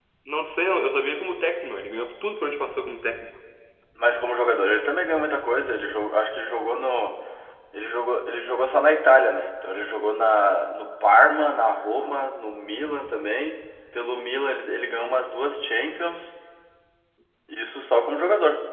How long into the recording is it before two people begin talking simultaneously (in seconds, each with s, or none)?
none